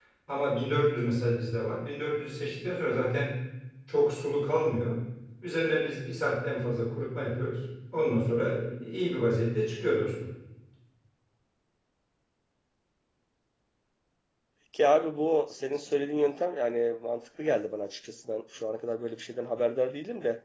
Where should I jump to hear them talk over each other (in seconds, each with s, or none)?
none